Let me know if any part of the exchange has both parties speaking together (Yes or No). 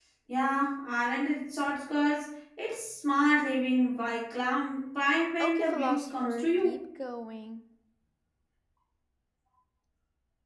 Yes